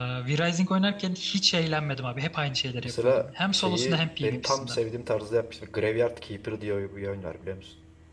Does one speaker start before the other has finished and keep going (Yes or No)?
Yes